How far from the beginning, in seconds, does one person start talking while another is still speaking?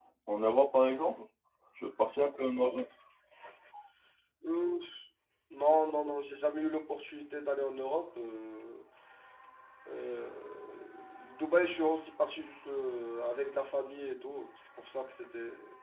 none

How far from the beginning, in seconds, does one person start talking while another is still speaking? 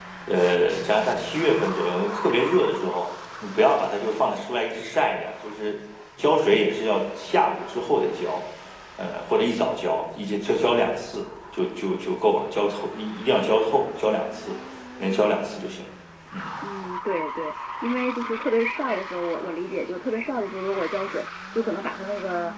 none

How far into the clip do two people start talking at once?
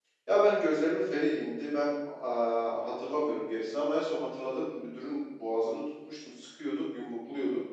none

